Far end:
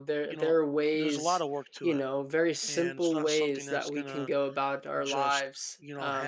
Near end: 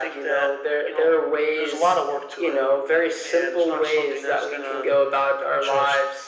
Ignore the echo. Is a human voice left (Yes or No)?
No